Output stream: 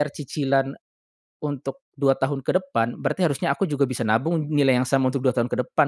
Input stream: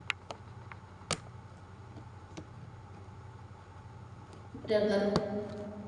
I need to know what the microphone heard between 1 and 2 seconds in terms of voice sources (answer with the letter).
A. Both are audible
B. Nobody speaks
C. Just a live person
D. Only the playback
B